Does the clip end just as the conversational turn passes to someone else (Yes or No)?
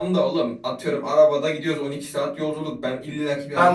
Yes